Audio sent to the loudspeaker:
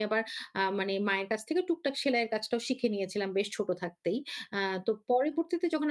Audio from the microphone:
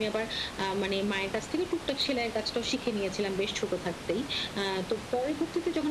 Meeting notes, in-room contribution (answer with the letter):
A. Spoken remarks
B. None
B